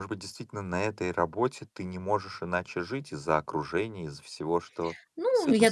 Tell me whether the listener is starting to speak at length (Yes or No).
Yes